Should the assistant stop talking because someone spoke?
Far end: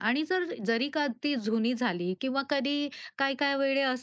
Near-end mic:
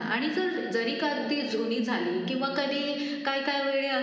Yes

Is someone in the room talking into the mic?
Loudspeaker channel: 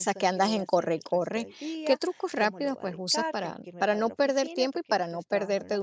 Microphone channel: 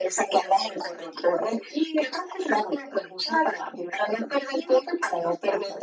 No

